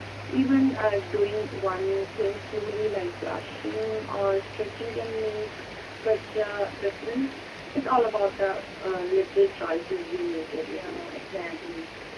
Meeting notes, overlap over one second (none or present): none